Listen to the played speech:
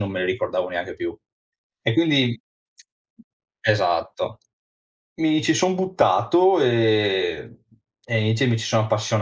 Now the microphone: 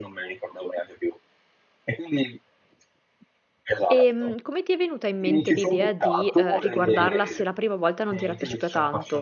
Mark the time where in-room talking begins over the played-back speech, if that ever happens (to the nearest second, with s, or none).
4 s